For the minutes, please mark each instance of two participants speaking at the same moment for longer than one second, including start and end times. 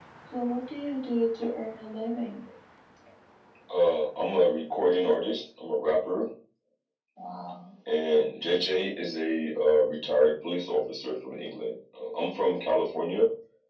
none

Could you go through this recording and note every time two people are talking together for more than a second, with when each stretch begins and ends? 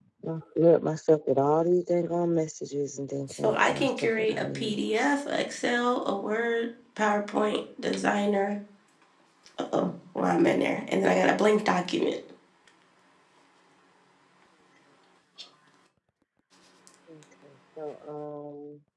3.3-4.8

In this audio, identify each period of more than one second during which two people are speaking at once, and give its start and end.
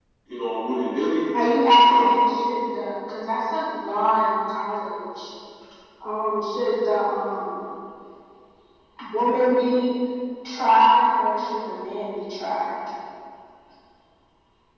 none

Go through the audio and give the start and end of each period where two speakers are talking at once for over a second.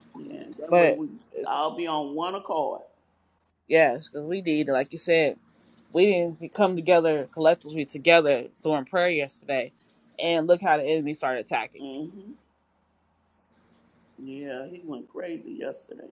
none

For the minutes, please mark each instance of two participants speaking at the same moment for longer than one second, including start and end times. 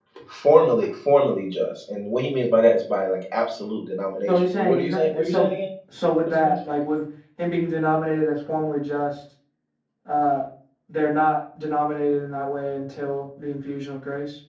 4.3-5.5

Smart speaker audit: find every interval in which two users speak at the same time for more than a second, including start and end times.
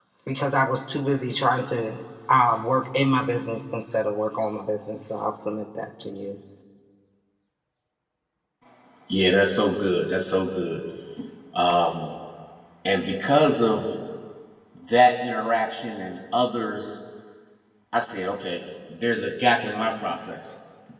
none

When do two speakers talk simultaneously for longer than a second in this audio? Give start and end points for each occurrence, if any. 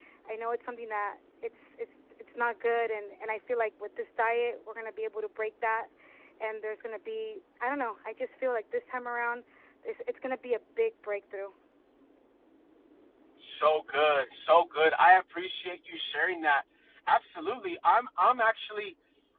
none

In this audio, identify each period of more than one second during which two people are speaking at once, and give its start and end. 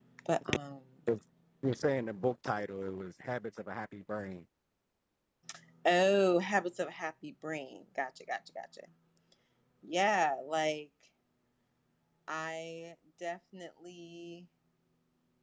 none

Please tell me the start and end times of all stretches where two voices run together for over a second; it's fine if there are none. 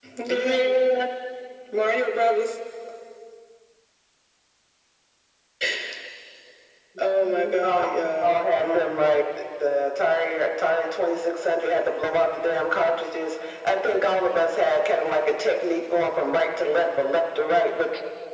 7.3-9.1

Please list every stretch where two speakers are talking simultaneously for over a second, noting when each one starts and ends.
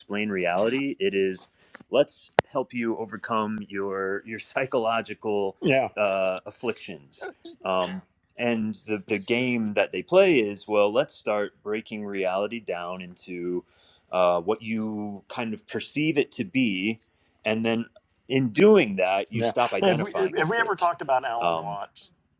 19.3-20.9

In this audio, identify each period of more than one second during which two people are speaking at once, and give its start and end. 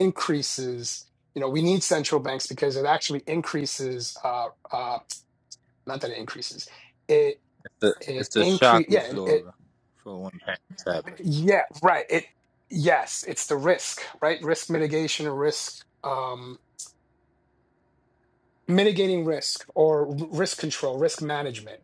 8.2-9.4

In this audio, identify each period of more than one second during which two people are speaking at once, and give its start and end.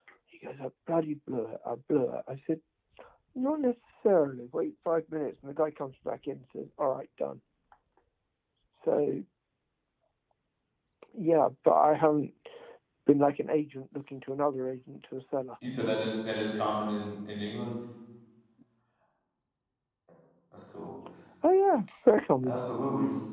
none

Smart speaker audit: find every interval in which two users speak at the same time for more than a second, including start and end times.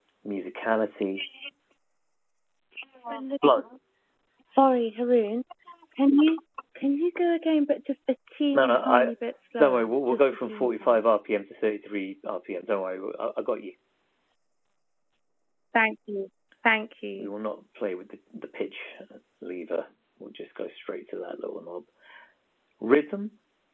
9.6-11.0

